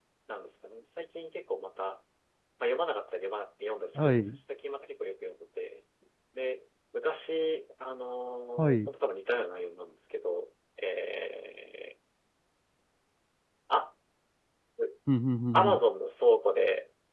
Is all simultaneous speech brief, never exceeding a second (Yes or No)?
Yes